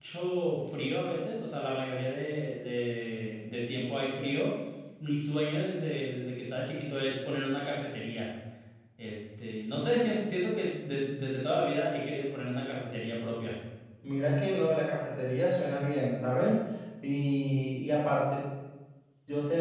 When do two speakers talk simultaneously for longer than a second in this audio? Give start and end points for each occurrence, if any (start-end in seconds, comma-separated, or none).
none